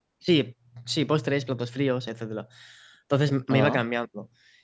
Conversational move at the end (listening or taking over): listening